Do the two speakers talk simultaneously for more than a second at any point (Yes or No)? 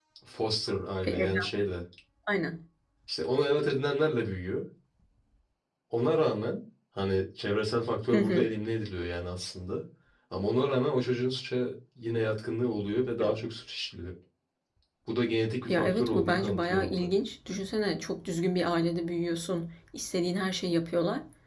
Yes